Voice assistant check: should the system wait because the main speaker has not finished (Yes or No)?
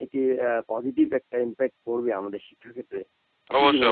No